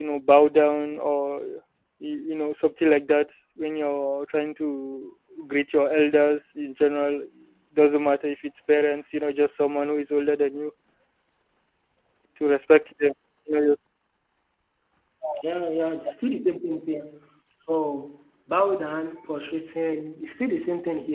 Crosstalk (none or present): none